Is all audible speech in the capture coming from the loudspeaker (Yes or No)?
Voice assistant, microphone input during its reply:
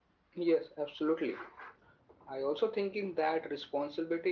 Yes